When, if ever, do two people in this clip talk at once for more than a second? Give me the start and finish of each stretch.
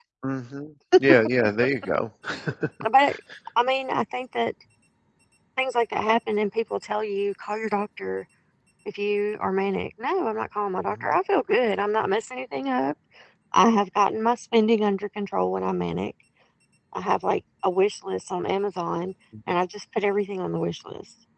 none

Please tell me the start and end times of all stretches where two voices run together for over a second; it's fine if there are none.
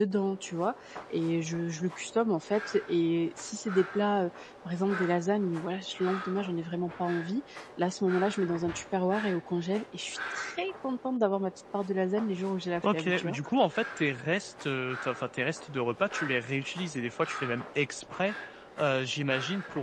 none

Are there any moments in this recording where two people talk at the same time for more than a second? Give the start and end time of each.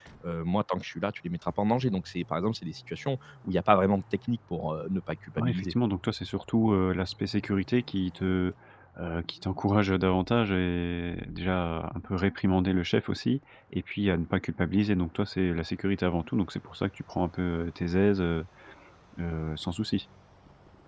none

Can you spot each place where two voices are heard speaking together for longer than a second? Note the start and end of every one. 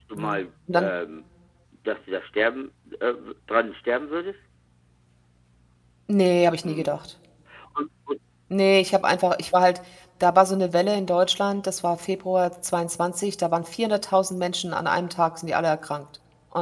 none

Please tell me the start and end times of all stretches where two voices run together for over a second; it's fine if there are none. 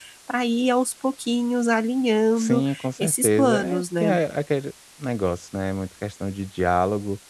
2.4-4.1

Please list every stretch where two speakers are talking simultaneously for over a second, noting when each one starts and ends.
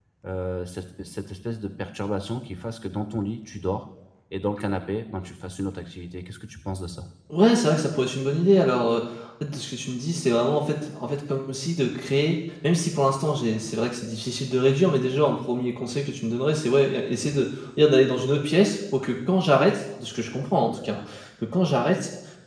none

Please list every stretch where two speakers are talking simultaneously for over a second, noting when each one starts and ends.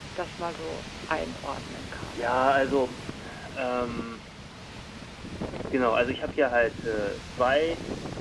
none

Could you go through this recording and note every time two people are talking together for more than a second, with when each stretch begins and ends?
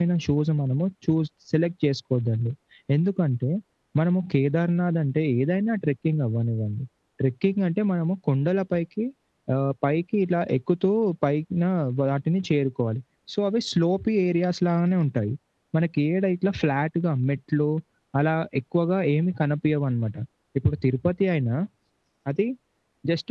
none

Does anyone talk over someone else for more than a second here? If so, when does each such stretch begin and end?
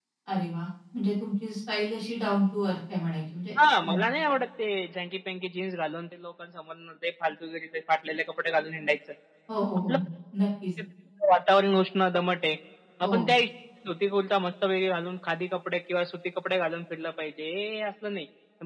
none

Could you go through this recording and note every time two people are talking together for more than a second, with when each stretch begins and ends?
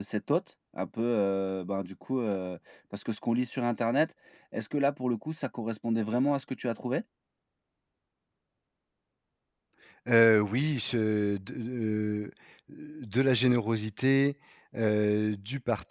none

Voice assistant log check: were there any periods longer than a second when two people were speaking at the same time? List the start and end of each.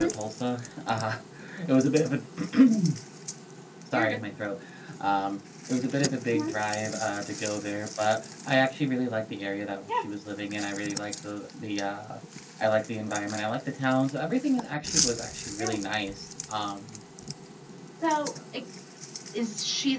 none

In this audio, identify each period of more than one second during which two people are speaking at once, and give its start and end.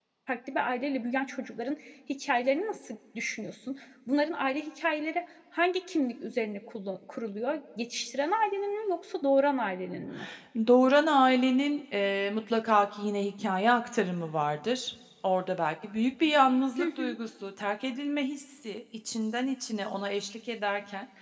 none

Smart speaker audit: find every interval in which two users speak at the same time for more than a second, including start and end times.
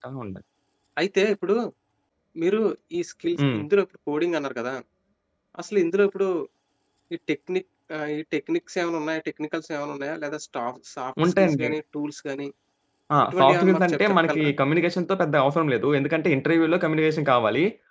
13.3-14.5

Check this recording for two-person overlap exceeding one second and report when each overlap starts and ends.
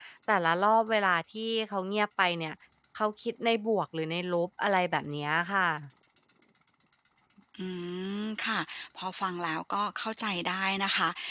none

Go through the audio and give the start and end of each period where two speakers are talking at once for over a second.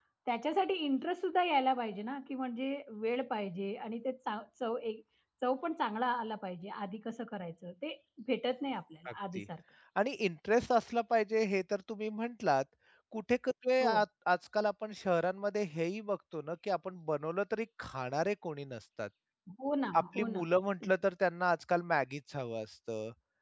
none

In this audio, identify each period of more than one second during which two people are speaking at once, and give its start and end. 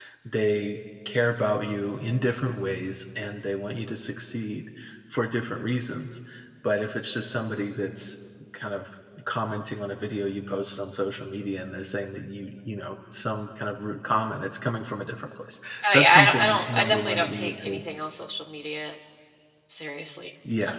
15.9-17.8

